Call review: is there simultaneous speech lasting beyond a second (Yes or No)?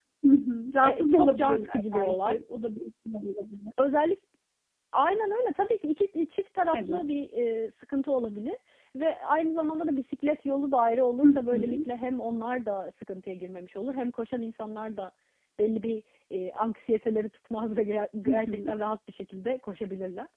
Yes